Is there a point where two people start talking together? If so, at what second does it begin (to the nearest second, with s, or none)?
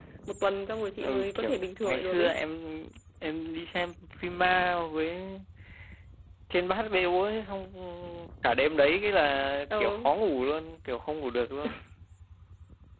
1 s